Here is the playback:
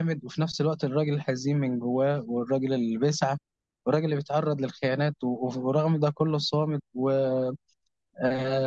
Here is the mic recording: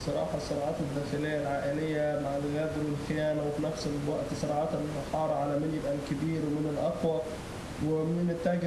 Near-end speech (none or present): present